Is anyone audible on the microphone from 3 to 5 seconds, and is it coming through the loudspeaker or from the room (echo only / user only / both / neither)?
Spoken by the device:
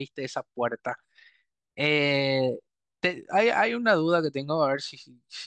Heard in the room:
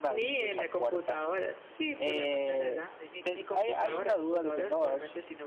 both